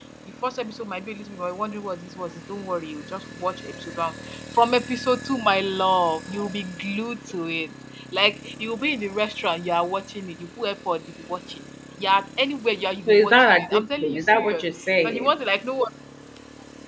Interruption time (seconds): 13 s

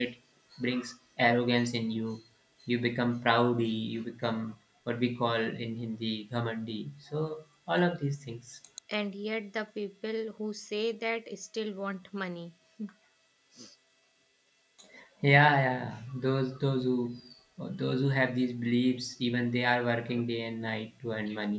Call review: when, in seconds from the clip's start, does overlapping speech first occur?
none

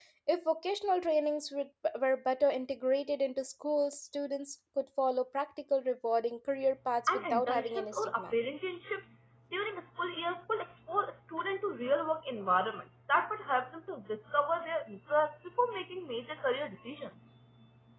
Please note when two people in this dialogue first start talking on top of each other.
7 s

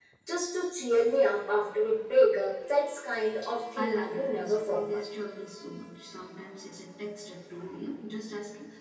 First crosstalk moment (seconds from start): 4 s

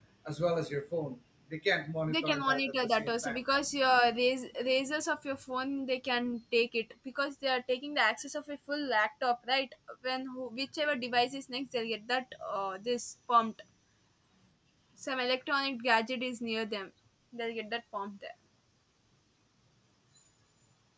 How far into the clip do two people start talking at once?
2 s

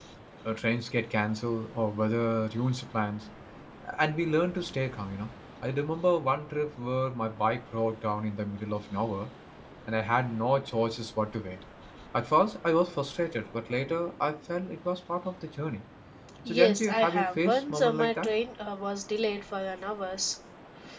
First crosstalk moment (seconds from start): 16 s

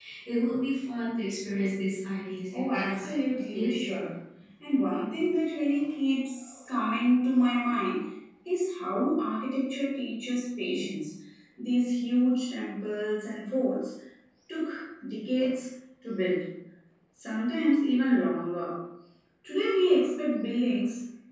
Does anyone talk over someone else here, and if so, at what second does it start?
3 s

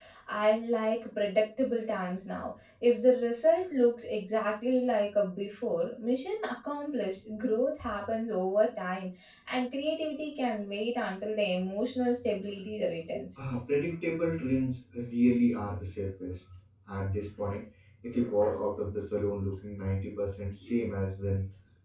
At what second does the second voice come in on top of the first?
none

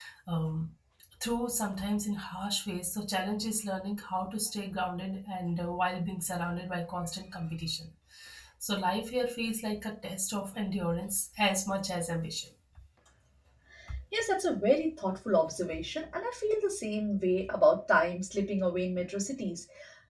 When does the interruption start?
none

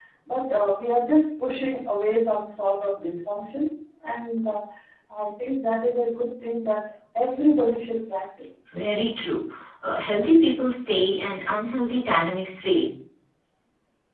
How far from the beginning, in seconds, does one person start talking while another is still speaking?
none

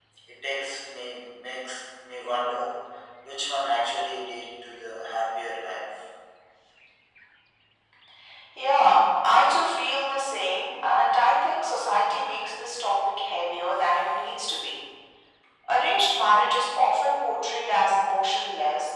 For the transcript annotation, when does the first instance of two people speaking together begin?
none

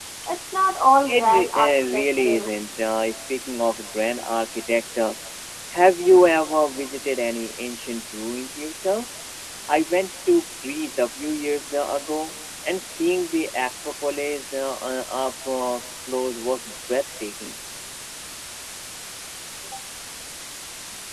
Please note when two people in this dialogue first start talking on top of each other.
1 s

